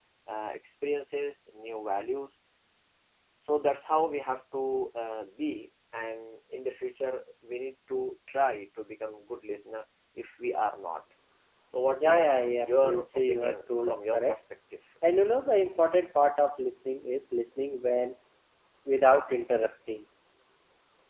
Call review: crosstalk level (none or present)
present